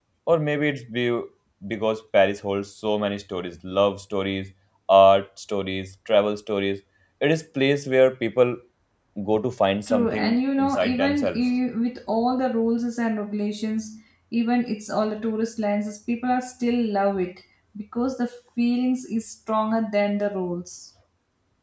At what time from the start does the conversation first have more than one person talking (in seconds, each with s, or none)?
9.9 s